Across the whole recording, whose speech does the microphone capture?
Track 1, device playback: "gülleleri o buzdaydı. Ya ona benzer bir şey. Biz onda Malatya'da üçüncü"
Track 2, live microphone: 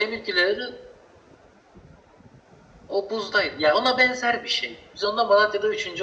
echo only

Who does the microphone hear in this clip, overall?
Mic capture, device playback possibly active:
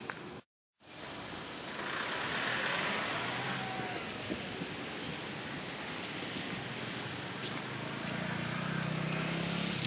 neither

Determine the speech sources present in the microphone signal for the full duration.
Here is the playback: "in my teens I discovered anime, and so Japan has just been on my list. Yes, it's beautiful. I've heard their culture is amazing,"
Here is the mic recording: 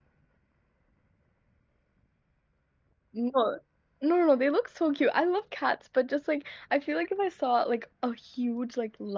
user only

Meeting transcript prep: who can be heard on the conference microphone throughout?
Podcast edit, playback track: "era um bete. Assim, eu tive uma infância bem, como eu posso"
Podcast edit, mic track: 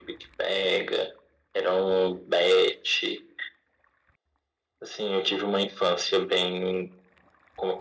echo only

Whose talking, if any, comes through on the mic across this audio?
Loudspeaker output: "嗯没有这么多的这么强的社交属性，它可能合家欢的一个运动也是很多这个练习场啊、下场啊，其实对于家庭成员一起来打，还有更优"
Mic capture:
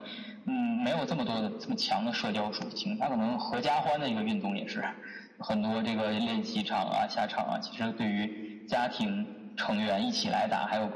echo only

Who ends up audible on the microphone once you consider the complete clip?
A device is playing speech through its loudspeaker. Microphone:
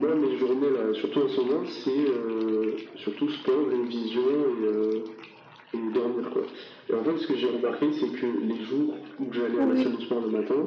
both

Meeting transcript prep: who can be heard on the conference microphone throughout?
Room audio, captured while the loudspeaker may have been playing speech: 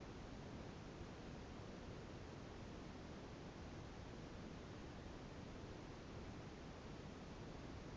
neither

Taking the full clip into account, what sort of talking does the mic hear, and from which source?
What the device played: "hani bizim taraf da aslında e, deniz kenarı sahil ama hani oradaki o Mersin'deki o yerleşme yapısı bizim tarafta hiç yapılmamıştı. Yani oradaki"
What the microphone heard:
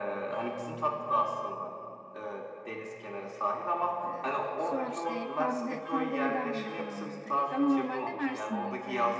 both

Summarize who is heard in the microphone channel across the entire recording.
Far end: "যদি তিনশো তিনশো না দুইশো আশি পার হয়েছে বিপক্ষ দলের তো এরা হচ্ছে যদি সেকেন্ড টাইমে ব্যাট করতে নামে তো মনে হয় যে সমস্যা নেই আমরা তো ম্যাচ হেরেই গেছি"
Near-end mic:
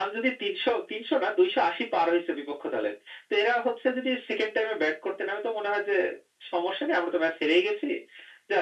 echo only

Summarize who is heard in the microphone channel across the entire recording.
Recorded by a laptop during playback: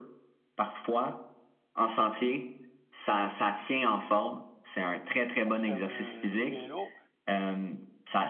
both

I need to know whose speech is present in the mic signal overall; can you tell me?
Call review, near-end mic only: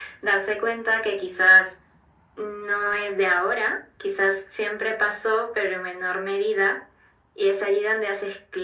echo only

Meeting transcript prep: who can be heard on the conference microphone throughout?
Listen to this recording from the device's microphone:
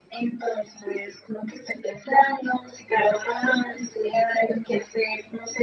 echo only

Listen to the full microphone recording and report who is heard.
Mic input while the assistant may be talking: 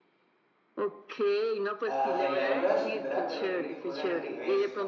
both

